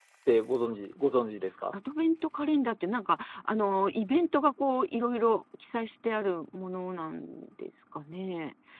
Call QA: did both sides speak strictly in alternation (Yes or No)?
Yes